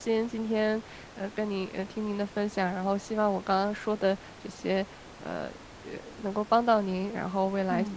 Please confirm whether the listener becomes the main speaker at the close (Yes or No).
No